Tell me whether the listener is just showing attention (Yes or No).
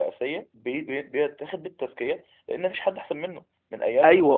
No